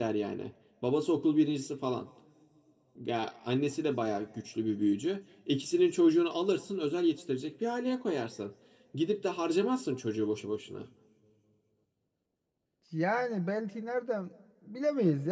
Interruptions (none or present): none